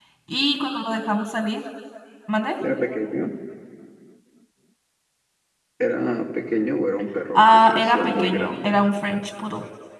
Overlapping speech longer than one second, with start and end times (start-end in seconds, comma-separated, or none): 7.3-8.8